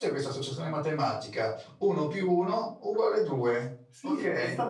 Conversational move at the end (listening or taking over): taking over